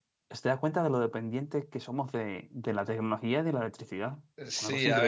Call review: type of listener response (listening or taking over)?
taking over